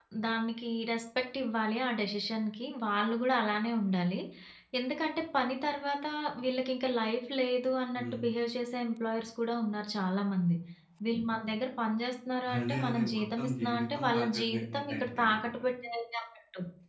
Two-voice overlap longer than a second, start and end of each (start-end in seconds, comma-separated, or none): 12.6-15.5